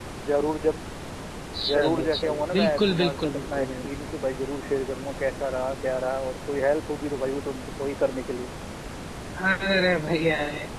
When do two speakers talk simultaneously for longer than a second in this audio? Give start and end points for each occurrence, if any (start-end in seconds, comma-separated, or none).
1.6-3.8